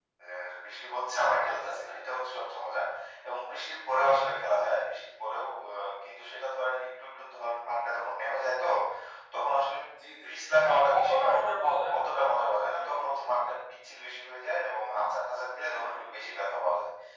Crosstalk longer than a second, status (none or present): none